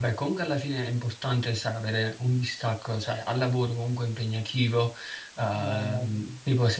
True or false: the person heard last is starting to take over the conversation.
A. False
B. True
A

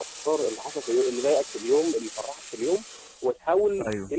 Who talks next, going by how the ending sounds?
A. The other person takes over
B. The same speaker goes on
B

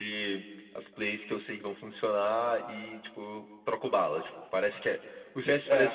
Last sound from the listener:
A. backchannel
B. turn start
A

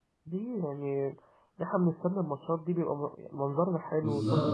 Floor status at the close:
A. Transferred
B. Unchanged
A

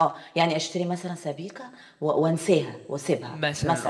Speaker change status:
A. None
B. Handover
B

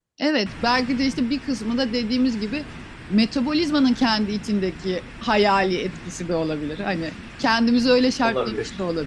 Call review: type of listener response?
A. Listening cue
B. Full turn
A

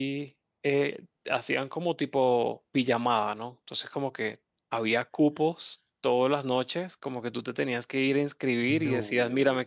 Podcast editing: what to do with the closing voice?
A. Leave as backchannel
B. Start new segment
A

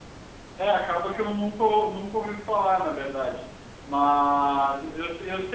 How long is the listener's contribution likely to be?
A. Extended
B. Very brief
B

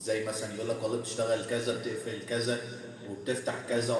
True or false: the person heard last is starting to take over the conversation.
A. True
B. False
B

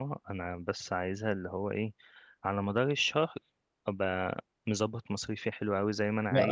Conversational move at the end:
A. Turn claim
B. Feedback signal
A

